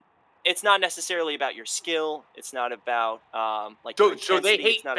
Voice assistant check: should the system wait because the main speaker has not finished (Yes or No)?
No